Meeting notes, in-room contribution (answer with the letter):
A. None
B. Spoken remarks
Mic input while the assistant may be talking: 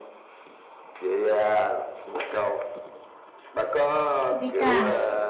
B